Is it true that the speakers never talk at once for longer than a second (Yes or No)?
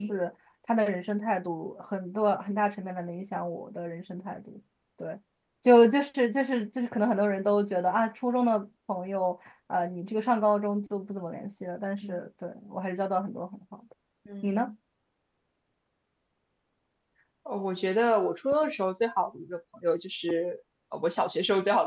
Yes